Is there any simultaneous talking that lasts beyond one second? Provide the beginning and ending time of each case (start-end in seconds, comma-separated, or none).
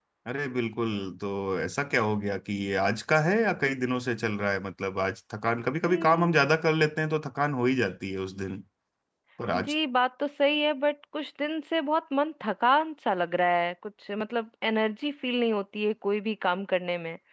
none